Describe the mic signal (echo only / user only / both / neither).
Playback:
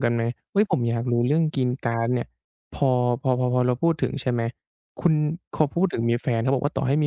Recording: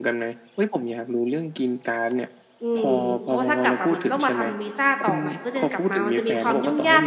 both